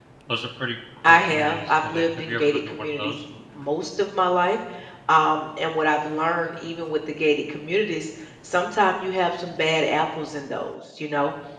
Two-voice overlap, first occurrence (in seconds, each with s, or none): 1.1 s